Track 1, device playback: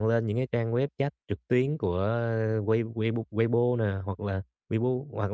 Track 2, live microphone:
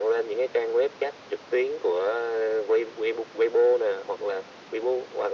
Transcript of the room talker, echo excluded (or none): none